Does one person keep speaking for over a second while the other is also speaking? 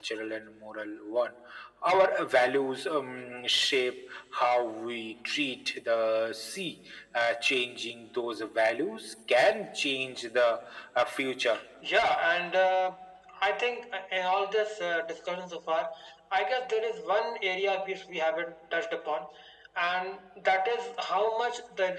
No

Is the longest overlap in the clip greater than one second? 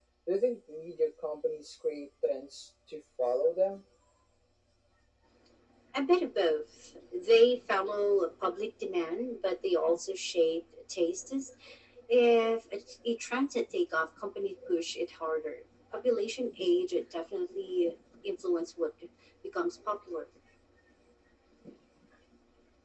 No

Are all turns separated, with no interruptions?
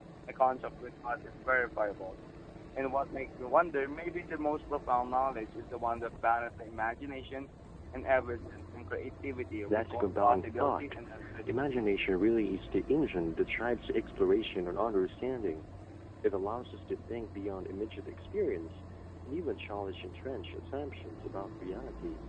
No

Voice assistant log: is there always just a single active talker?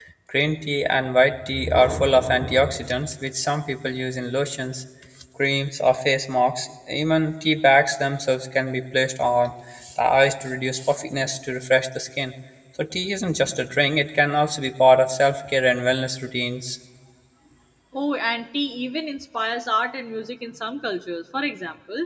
Yes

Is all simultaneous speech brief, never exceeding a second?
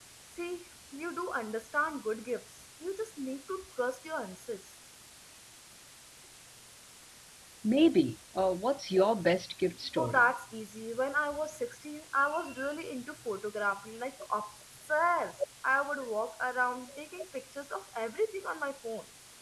Yes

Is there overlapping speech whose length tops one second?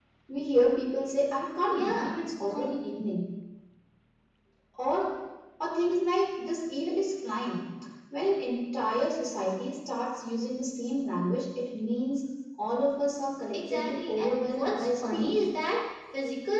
Yes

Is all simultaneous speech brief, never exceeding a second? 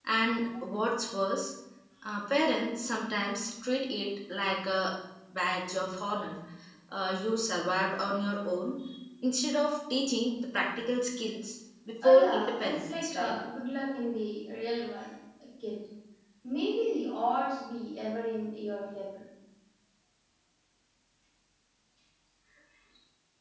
No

